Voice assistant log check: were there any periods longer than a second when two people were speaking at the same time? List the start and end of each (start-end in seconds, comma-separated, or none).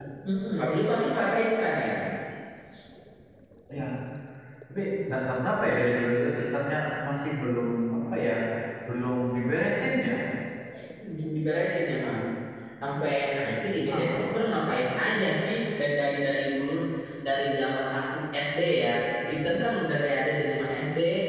13.9-15.2